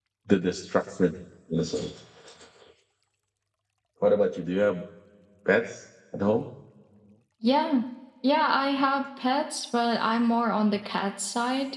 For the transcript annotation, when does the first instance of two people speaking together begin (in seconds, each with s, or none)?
none